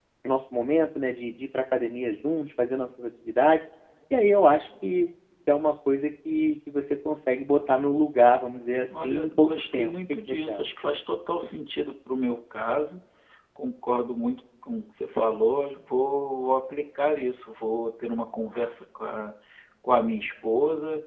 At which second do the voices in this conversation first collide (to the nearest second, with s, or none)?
9 s